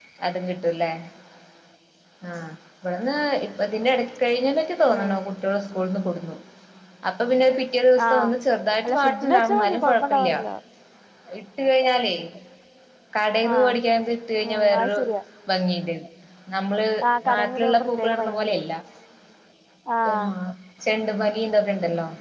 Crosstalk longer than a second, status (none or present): present